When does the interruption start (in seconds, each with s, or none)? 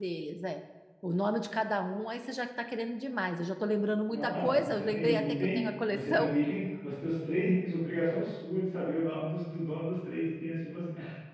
4.1 s